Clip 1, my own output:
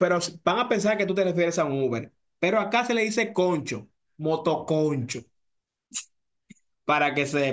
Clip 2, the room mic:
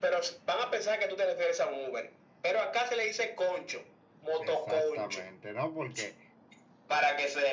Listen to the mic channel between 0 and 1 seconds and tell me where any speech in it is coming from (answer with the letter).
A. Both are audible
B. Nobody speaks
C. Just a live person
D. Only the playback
D